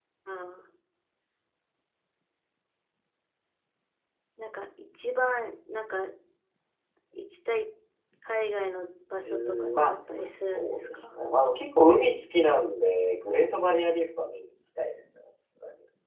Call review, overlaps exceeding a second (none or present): present